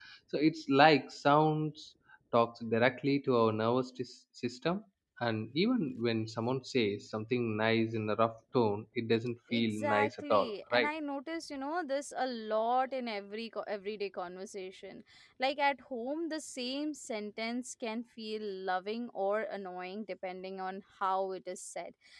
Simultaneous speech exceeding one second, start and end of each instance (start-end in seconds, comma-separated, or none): 9.5-10.9